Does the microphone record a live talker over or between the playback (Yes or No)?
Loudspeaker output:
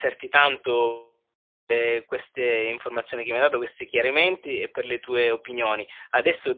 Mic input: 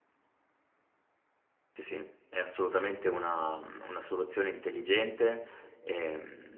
Yes